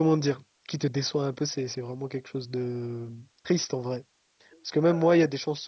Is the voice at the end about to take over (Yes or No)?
No